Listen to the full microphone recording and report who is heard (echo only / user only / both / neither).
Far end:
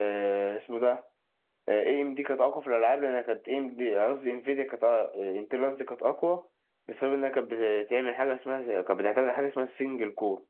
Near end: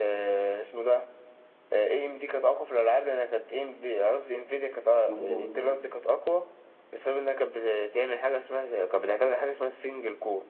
both